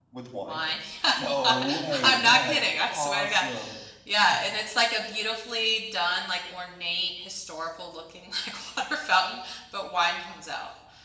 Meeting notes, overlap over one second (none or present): present